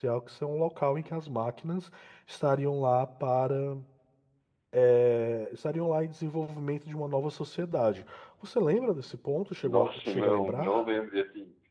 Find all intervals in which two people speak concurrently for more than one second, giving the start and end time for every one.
9.6-10.9

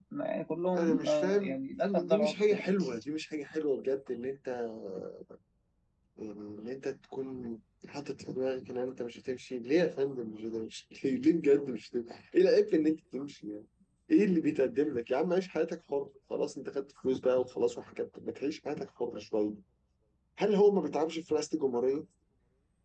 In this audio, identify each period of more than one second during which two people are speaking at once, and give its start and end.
0.8-2.7

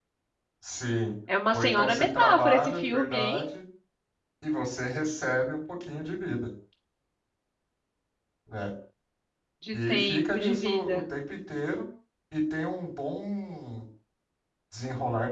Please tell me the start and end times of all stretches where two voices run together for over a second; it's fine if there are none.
1.5-3.4, 9.7-11.0

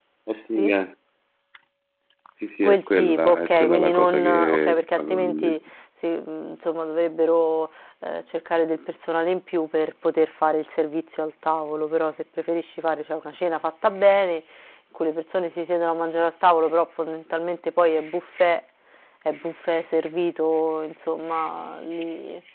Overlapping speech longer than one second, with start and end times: 2.6-5.5

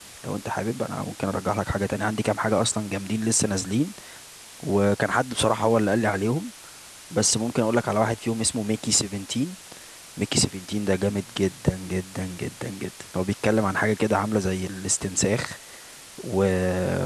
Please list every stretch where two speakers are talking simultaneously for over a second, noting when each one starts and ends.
none

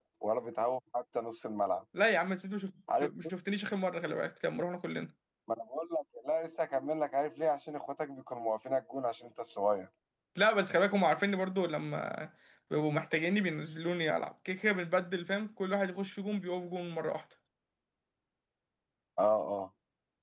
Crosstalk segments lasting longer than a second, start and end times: none

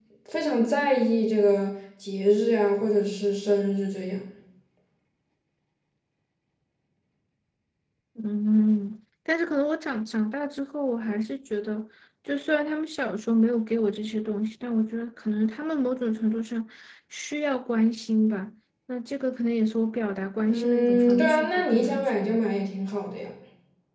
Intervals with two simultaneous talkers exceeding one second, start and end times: 20.5-22.4

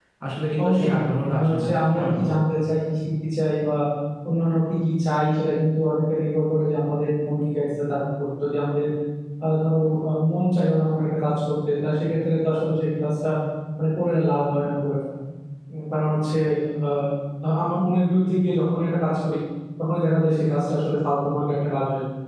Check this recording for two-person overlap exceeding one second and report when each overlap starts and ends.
0.6-2.4

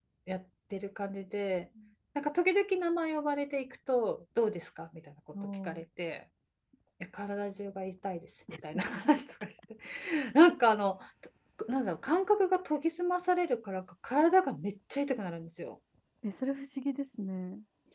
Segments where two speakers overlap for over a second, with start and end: none

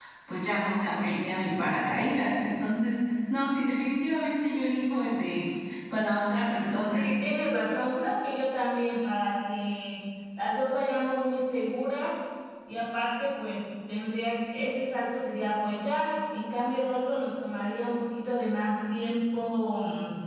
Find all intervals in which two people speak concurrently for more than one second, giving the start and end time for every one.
none

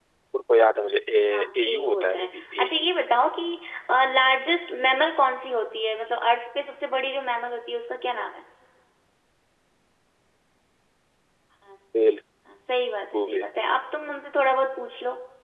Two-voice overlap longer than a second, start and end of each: 1.3-2.9

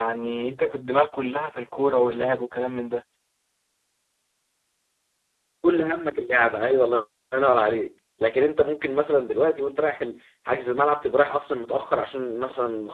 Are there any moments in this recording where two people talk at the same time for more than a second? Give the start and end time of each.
none

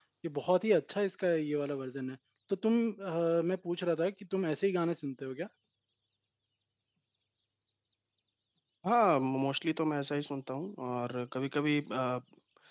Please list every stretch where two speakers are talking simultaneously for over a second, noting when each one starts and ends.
none

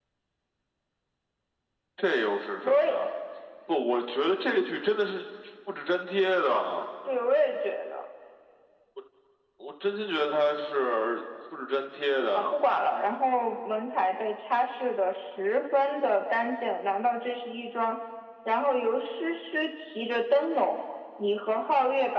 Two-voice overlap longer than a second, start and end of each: none

